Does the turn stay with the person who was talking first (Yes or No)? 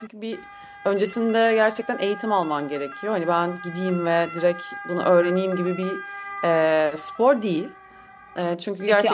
No